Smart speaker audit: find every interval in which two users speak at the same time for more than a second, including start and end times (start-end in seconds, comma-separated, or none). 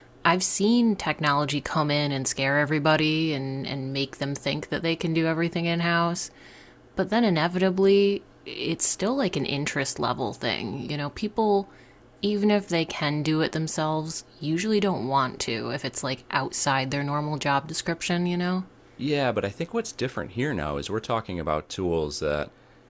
none